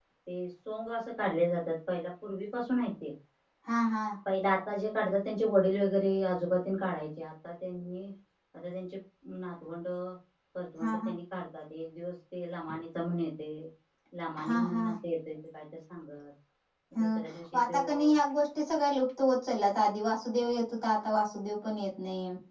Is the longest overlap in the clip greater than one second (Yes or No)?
No